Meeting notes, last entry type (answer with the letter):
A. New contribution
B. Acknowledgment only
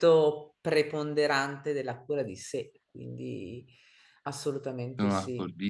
A